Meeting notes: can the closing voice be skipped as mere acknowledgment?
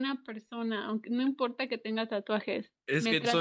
No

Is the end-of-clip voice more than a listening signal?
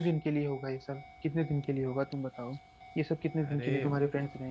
No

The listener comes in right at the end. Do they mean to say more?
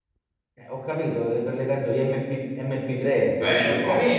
Yes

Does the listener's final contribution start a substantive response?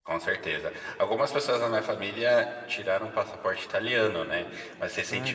No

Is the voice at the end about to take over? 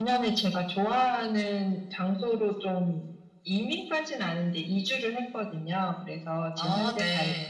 No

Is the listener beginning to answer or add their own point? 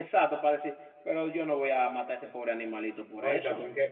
Yes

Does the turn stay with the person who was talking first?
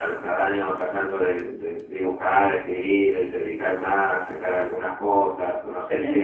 No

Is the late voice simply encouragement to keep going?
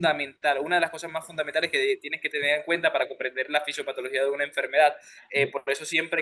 Yes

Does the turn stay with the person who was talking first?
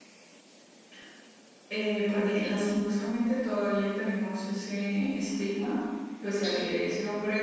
Yes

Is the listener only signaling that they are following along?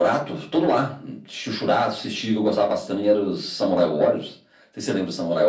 No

